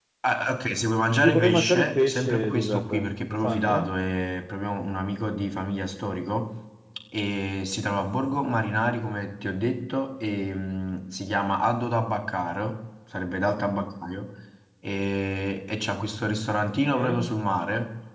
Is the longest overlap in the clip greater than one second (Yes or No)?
Yes